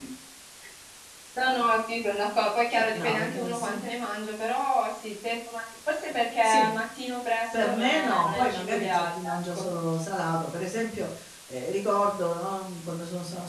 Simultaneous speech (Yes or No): Yes